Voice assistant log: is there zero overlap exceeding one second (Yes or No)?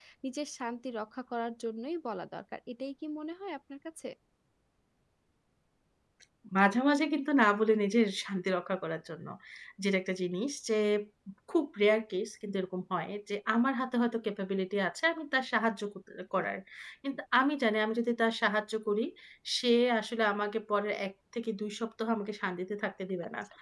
Yes